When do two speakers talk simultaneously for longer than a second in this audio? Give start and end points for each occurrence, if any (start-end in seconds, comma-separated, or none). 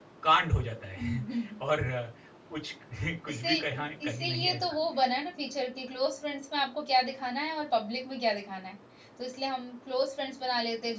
3.3-4.6